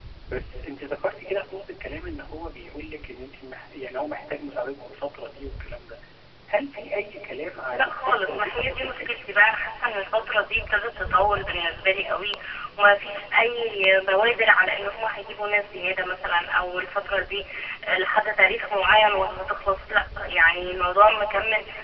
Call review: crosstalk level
present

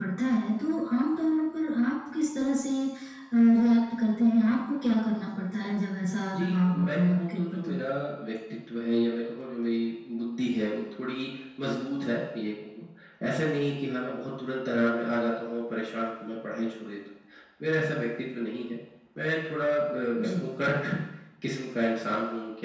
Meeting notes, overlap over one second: present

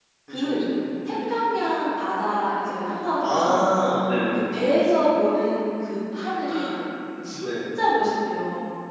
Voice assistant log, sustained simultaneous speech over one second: none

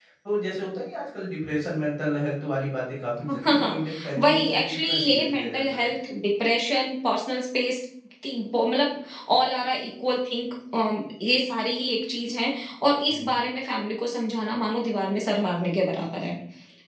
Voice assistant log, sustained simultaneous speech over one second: present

